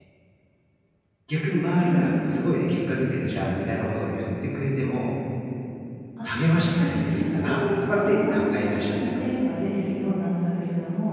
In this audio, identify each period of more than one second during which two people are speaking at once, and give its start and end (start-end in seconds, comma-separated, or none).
6.8-9.2